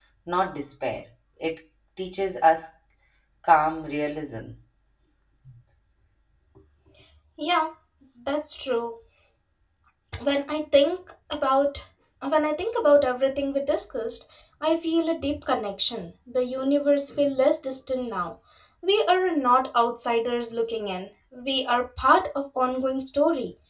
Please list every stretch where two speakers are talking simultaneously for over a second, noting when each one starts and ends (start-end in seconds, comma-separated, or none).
none